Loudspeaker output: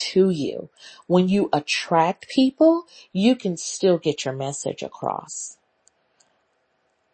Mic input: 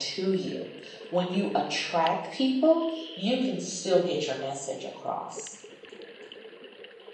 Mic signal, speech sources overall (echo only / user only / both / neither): echo only